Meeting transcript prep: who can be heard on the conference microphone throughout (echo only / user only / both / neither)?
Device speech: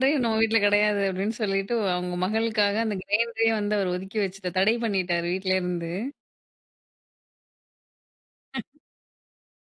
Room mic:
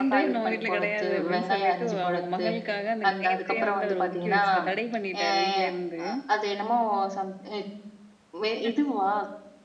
both